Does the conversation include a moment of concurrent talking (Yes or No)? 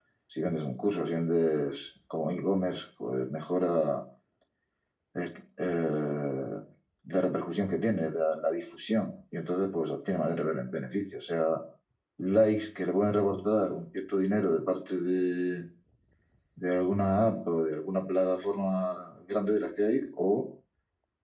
No